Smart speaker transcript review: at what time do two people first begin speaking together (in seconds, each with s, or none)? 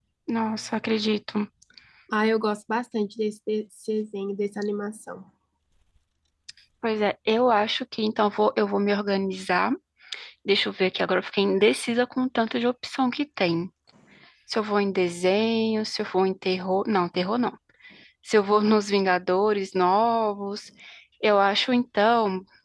none